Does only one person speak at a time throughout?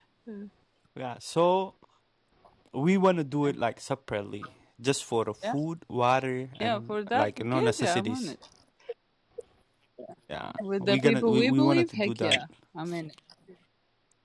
No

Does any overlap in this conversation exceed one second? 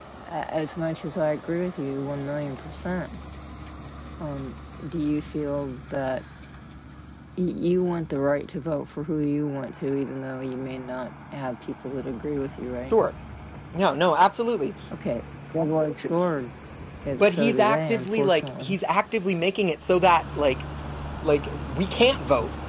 Yes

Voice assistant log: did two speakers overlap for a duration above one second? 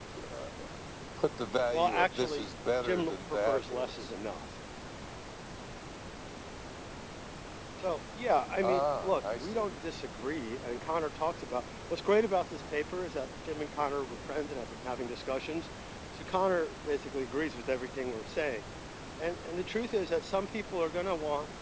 Yes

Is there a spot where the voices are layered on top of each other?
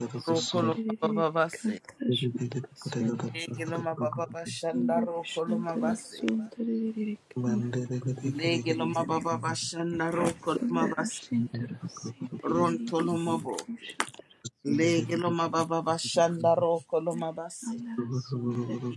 Yes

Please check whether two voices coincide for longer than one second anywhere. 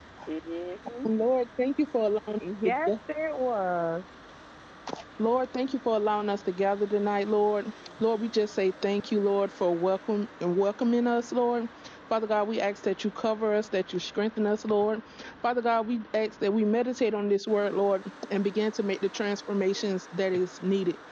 No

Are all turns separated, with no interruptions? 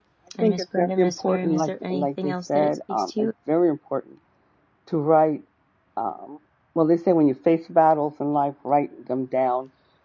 No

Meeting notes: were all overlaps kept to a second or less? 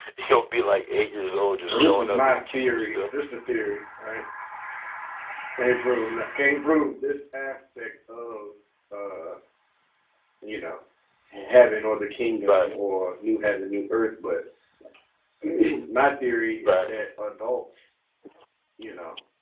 No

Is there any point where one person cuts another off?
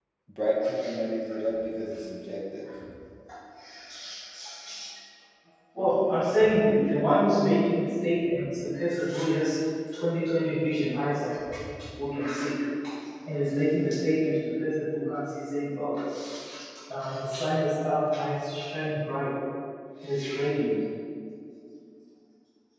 No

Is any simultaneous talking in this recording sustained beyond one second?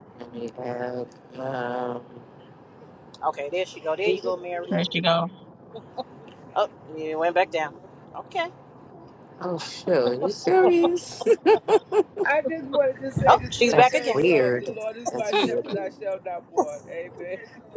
Yes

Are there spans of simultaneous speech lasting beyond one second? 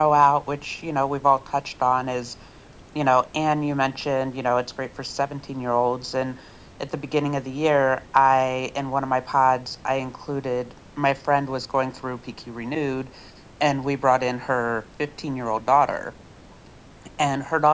No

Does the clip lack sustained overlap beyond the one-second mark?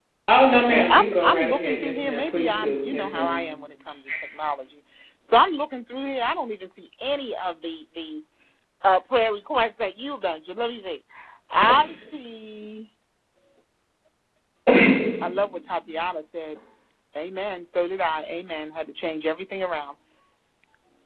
No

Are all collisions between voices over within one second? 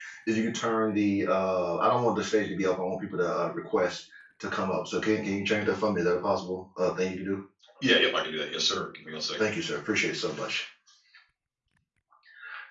Yes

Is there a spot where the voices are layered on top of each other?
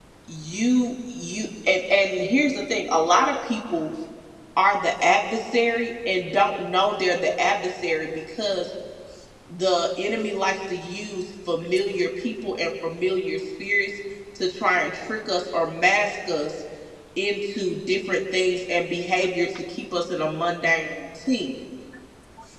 No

